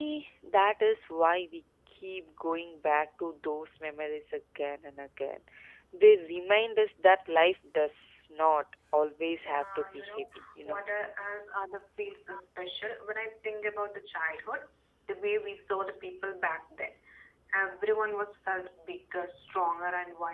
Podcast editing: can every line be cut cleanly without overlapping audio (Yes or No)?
No